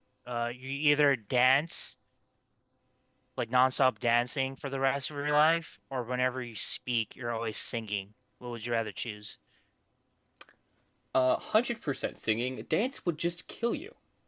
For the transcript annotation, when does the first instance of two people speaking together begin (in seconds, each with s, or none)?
none